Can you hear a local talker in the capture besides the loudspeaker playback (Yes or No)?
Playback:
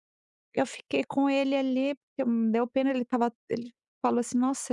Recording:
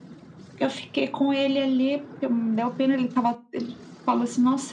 No